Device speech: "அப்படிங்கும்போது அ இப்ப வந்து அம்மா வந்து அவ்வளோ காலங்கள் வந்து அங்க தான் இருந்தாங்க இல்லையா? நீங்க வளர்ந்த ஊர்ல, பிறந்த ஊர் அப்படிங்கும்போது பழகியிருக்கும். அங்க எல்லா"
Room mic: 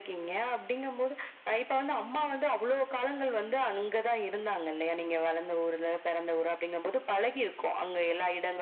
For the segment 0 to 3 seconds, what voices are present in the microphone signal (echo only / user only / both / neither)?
echo only